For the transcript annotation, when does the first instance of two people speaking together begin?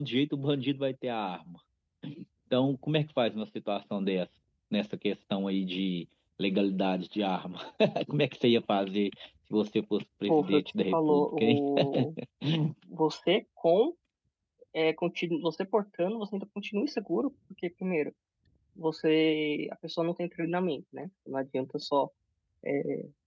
10 s

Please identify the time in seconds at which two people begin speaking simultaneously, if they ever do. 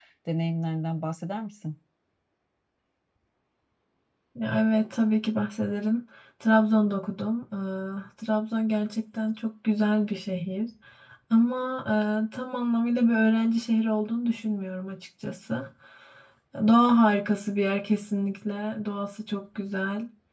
none

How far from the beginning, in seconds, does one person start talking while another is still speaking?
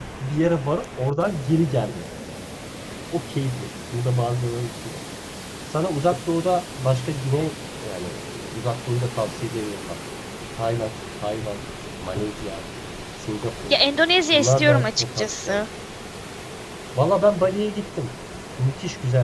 14 s

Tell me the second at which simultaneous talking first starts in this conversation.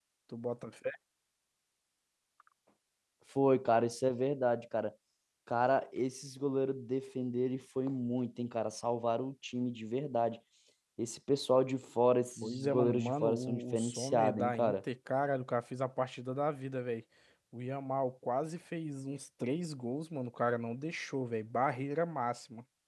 12 s

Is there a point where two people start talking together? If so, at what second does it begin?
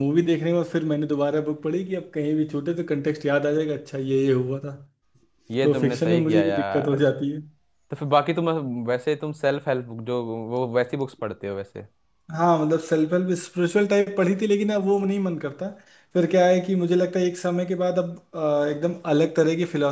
6 s

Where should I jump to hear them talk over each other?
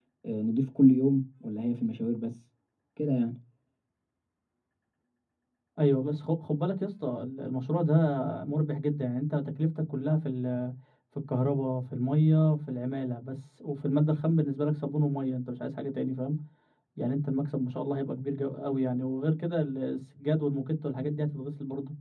none

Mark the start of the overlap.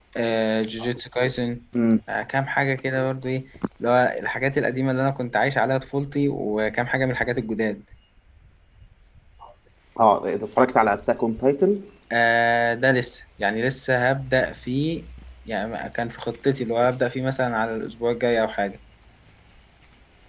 none

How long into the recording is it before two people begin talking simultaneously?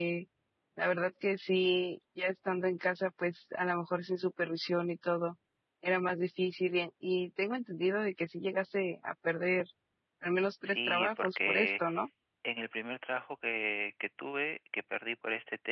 11 s

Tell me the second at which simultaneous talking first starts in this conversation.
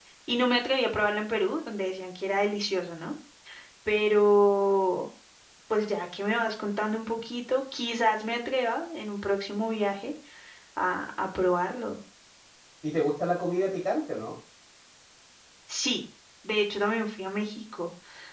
none

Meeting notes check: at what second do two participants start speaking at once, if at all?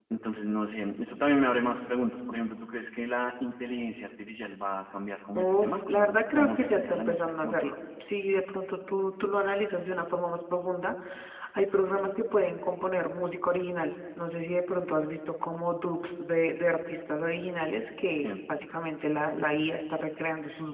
5 s

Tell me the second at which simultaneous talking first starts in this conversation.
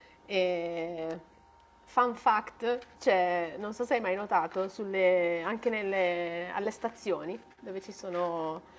none

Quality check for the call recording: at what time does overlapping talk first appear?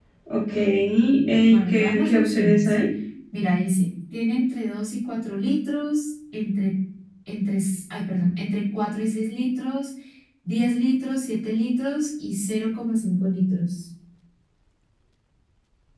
1 s

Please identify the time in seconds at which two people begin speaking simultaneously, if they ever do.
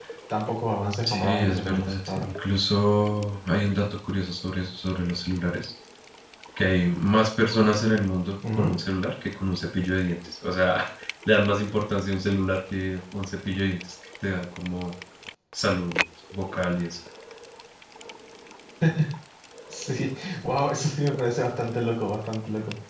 1 s

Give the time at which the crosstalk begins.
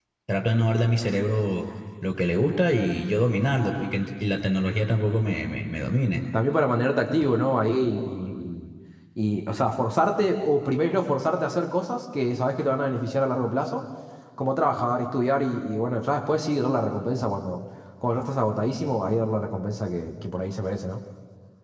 none

